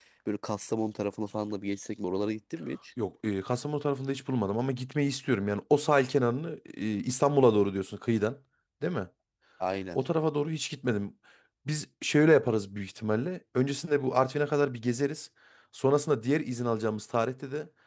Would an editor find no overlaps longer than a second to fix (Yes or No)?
Yes